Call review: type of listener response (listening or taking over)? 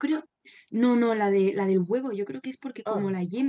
listening